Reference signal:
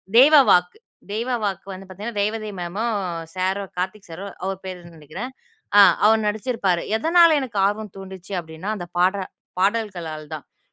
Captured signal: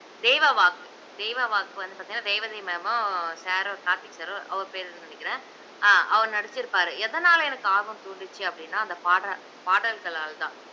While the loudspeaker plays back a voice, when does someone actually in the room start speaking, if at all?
none

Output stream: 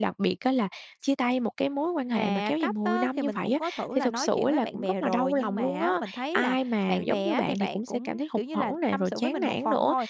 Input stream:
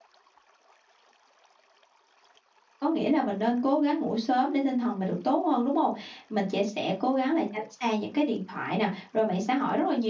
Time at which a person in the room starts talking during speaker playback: 2.8 s

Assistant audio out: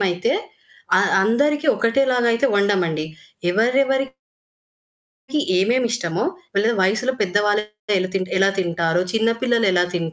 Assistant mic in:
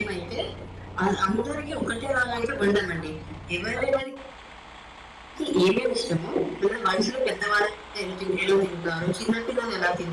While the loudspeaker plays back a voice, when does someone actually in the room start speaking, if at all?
none

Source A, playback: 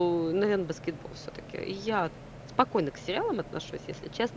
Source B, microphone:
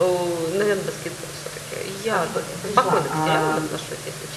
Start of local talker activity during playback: 2.1 s

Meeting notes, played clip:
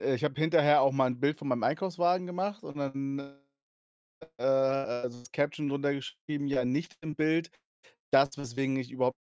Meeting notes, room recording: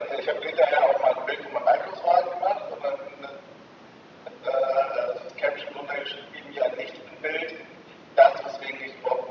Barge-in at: none

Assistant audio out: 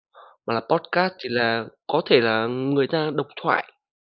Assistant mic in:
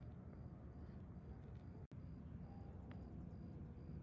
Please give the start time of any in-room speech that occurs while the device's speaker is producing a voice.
none

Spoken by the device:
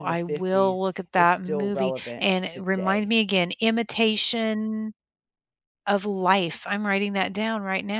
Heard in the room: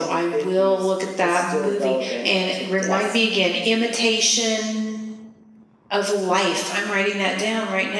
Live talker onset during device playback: 2.8 s

